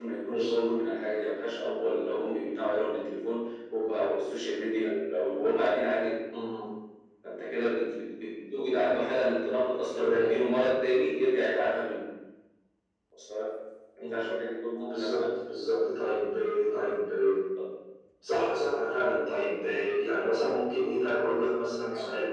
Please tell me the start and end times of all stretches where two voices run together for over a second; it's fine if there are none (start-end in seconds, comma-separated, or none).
none